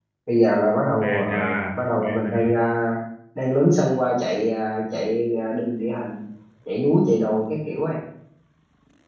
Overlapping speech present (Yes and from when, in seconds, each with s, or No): Yes, from 1.0 s